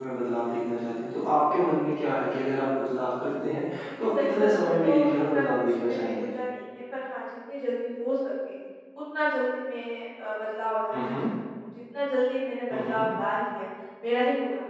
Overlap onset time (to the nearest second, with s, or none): 4 s